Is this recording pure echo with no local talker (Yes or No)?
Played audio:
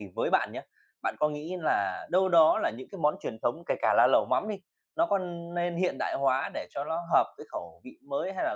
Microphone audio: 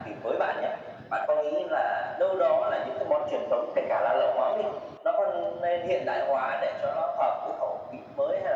Yes